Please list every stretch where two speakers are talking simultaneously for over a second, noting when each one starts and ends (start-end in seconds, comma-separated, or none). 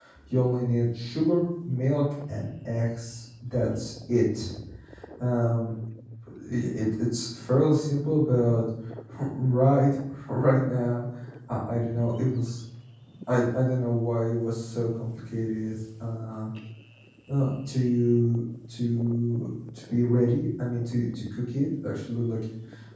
none